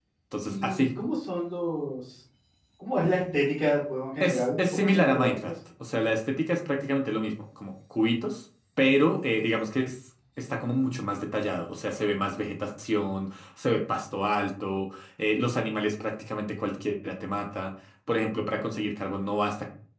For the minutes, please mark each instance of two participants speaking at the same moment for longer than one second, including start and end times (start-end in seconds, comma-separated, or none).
4.2-5.5